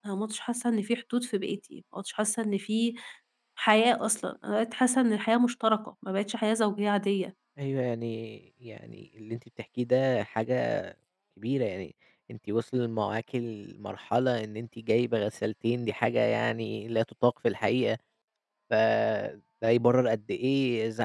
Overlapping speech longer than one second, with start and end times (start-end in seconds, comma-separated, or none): none